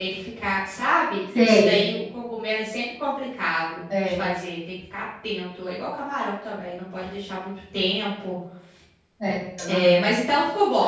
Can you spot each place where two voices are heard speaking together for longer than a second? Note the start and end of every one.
none

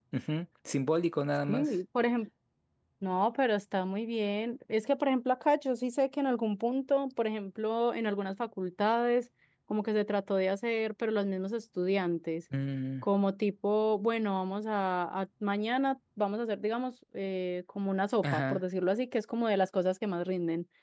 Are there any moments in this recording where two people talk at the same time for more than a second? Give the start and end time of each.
none

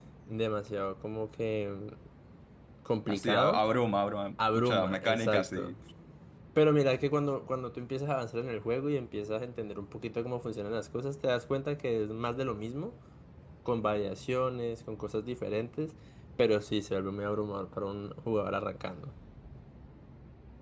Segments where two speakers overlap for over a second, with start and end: 4.5-5.7

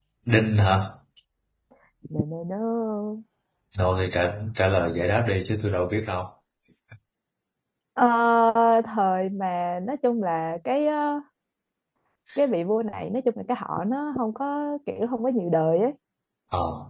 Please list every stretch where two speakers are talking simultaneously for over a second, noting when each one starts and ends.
none

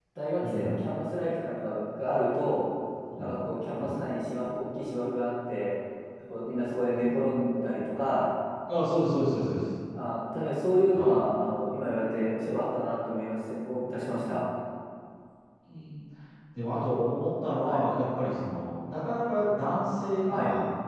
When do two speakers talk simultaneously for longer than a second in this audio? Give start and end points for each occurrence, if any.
none

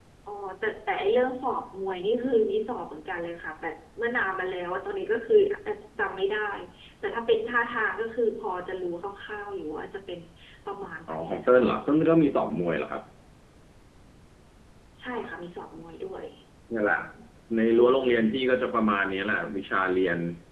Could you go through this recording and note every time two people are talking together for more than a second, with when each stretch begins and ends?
none

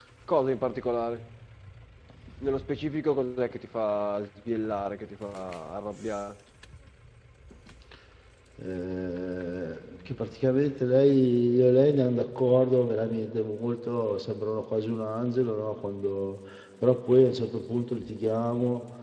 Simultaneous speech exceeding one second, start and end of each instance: none

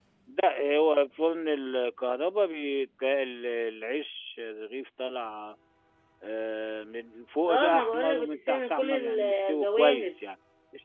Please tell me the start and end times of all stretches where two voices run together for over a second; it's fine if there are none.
7.5-10.1

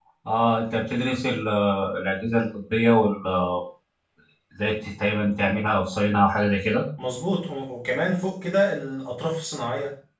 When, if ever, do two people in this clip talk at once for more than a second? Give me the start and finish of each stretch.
none

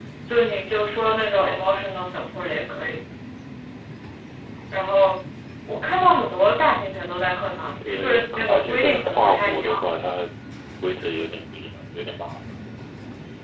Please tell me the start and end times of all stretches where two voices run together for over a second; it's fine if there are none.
7.8-9.9

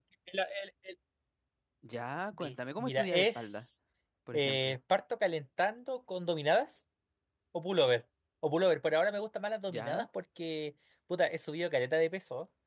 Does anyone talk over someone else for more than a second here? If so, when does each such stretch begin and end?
2.3-3.7

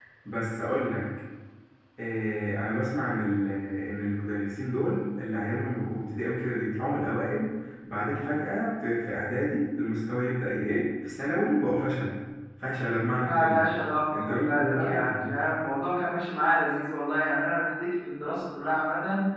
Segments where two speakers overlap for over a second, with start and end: 14.2-15.5

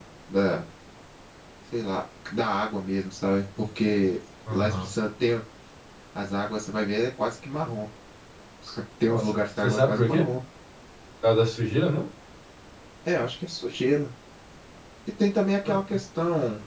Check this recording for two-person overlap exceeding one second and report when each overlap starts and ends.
9.0-10.2

